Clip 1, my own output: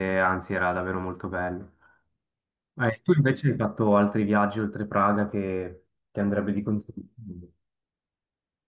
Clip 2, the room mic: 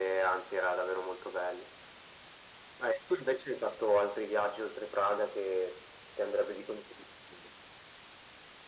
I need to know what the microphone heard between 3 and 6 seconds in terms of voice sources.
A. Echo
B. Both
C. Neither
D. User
A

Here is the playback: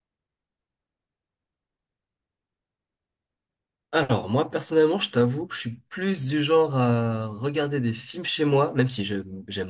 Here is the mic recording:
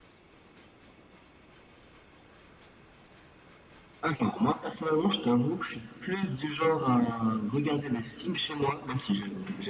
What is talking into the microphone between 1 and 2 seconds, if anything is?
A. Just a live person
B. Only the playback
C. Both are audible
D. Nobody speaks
D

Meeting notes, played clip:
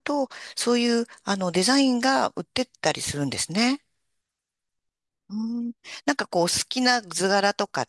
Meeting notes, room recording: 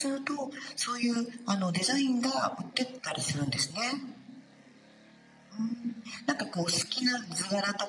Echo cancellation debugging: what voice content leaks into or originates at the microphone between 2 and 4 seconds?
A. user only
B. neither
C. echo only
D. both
C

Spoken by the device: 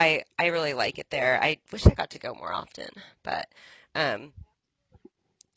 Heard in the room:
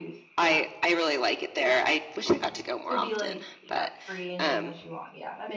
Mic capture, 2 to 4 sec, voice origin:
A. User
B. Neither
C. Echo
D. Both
D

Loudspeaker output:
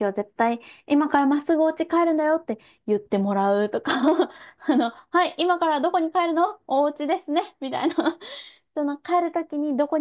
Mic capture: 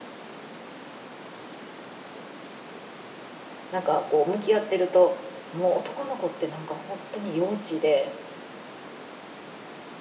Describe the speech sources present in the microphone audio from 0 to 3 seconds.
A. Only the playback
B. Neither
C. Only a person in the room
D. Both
B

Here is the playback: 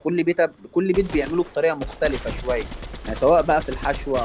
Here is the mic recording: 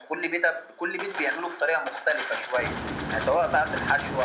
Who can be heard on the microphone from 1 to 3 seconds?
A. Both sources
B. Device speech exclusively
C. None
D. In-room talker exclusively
B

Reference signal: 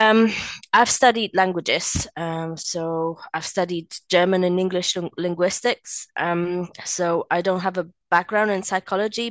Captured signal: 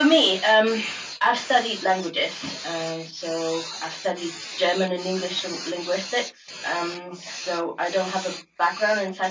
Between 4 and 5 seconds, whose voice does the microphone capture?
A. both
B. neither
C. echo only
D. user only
C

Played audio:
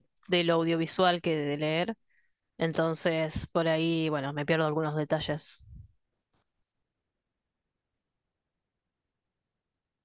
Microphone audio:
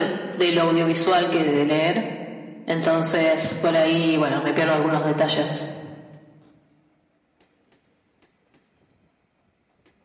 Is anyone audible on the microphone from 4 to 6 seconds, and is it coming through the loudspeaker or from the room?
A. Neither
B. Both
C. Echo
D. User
C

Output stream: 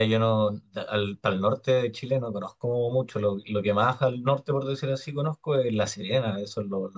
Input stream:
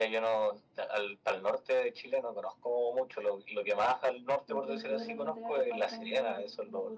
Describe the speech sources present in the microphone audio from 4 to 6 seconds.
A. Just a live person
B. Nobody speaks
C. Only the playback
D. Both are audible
D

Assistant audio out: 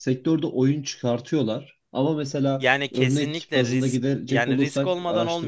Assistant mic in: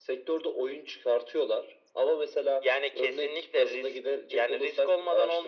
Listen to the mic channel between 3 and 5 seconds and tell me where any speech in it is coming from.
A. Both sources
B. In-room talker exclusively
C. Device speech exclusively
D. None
C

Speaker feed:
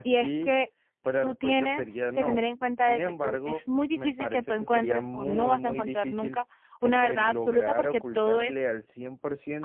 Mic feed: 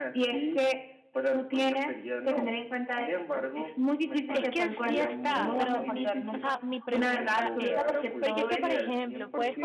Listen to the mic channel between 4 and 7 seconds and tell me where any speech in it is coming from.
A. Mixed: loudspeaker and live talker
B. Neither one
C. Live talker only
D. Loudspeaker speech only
A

